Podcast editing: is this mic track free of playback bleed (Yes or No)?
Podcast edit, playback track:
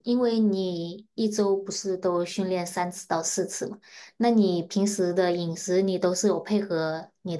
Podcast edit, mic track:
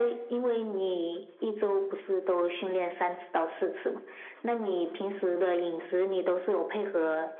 No